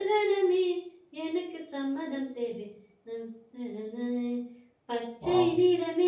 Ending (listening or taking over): listening